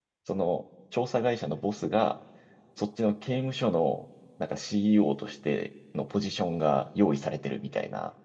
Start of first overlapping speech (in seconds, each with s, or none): none